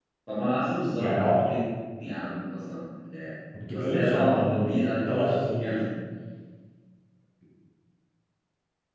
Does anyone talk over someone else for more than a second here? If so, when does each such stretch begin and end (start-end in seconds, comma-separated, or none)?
3.7-5.6